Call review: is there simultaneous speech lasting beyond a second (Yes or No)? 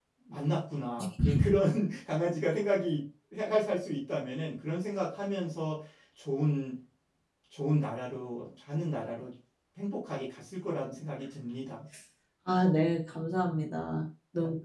No